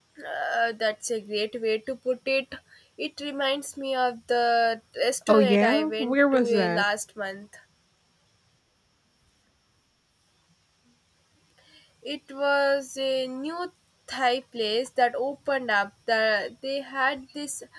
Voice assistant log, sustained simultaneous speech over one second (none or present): present